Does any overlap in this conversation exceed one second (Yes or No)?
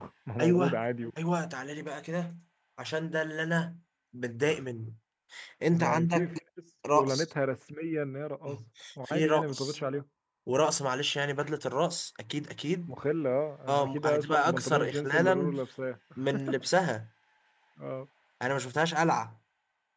Yes